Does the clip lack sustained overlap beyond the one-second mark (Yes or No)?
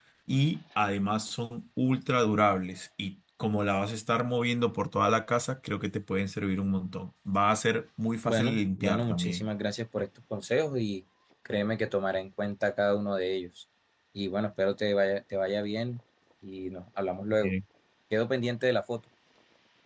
No